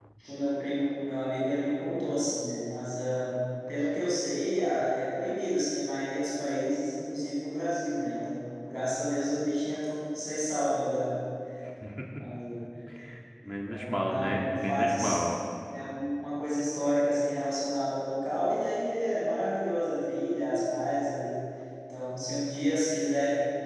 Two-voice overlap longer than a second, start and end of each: 13.7-15.2

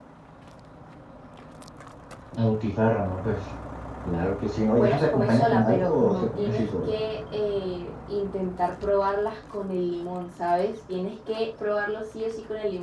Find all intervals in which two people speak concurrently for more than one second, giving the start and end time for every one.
4.7-6.9

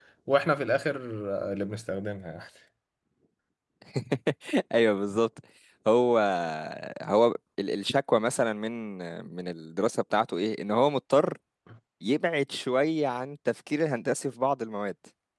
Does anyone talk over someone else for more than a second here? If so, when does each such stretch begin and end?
none

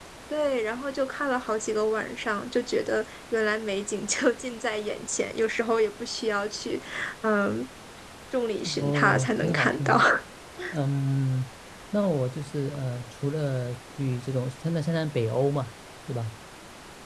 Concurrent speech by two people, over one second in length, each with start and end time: 8.7-10.0

